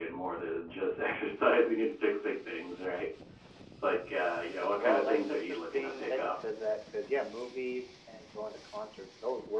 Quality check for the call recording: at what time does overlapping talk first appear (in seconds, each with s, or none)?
4.8 s